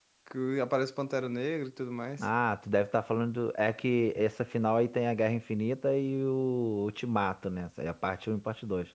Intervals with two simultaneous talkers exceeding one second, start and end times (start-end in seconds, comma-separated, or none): none